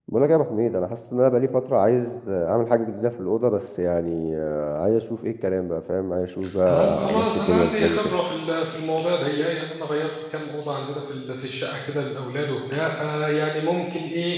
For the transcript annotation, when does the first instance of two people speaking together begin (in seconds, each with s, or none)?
6.7 s